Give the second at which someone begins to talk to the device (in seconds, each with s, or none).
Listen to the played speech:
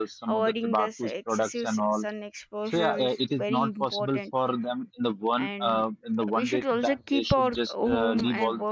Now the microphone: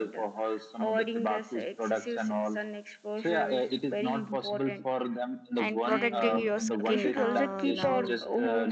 5.5 s